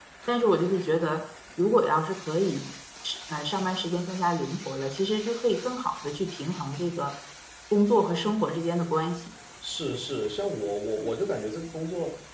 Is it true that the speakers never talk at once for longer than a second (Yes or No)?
Yes